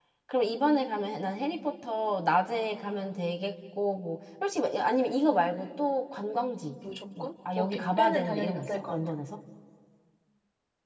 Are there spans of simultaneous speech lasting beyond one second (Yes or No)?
Yes